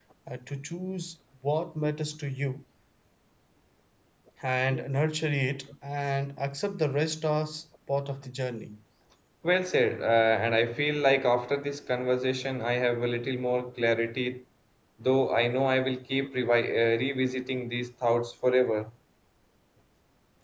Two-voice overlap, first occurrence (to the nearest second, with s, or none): none